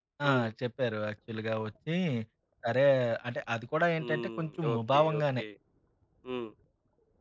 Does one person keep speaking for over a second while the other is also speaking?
Yes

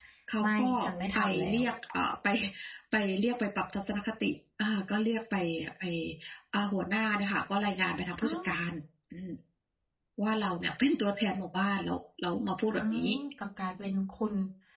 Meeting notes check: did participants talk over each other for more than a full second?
No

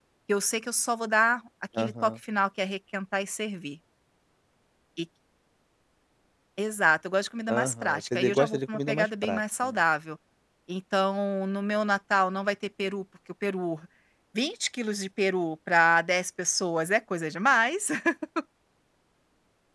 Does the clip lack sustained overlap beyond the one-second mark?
No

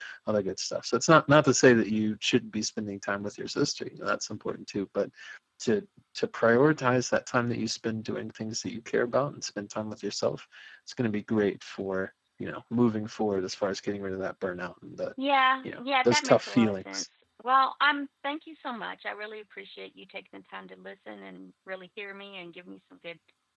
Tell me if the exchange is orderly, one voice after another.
No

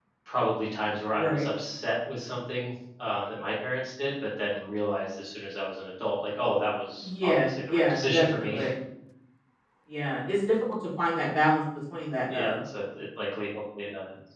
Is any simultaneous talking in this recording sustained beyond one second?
Yes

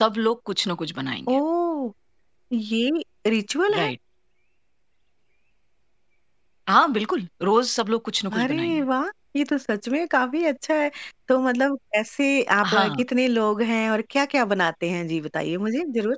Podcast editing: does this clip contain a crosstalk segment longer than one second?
No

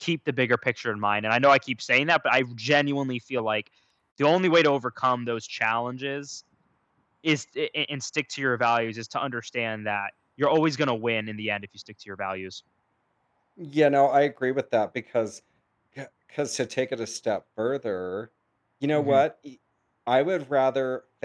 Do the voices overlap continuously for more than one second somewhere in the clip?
No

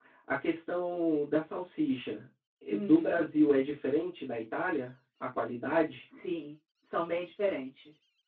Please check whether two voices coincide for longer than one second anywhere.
No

